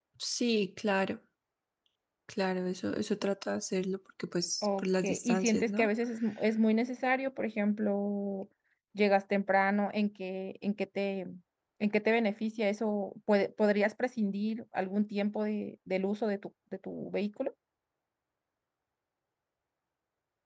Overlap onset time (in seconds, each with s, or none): 4.6 s